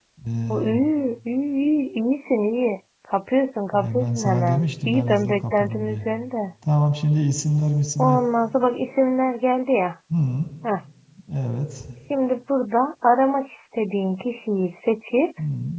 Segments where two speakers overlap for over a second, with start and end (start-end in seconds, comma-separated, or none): 3.7-6.0